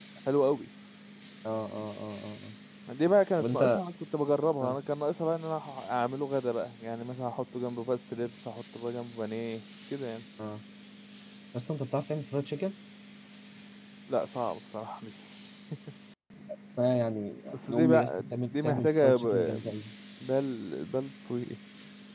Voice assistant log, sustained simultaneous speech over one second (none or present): present